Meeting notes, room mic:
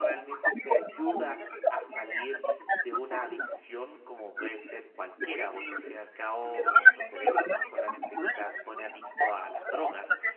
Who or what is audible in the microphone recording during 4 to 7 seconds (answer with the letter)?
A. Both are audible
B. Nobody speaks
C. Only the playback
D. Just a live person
A